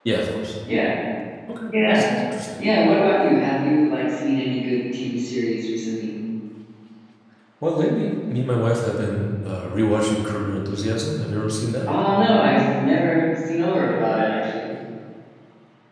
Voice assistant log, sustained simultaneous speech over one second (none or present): none